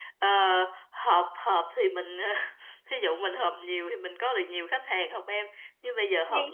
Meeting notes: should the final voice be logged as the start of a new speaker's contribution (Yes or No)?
No